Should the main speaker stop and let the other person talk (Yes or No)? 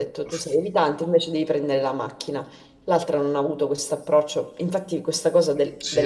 Yes